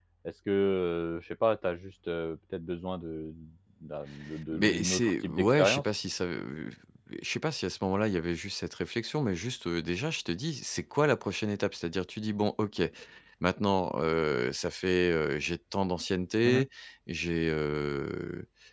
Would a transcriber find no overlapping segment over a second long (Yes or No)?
No